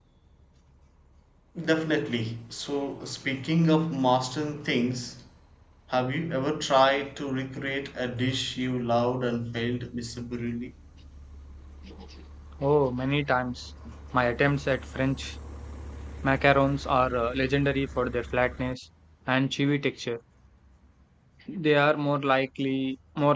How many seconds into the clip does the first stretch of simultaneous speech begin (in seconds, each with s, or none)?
none